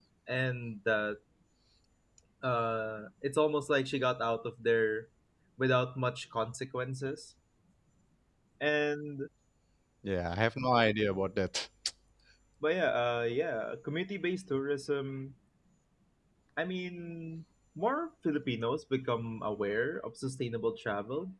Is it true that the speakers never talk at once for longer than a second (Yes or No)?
Yes